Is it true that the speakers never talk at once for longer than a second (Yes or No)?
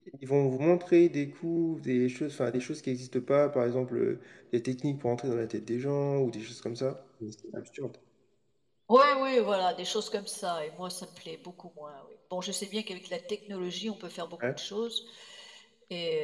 Yes